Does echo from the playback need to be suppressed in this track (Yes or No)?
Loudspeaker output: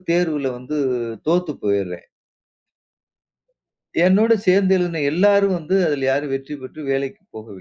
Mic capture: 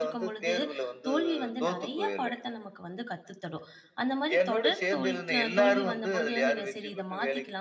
Yes